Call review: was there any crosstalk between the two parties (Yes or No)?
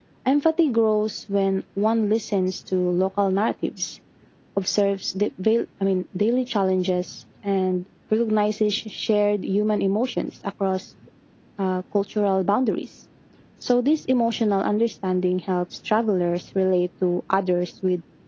No